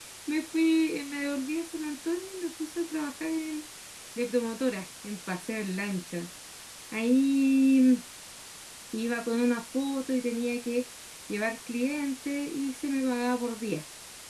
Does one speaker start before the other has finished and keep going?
No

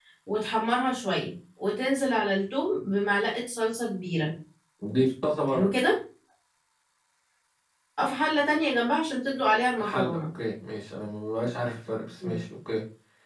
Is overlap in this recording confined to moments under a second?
Yes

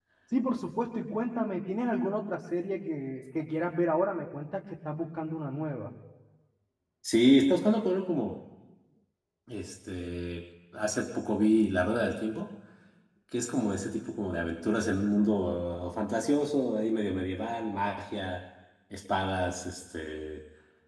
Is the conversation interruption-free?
Yes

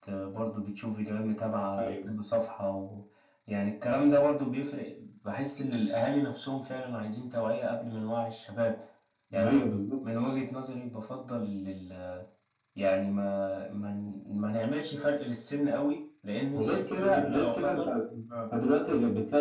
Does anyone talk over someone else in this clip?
Yes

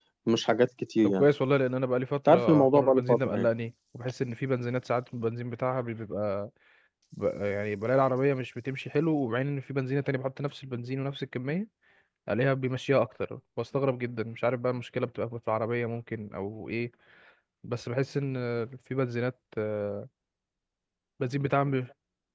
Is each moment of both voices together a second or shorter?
No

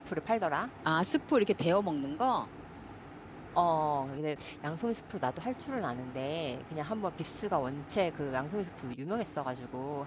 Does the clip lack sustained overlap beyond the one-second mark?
Yes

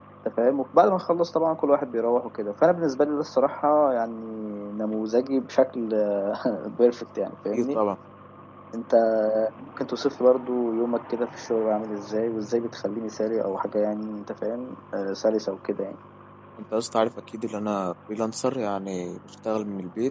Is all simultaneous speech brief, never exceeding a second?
Yes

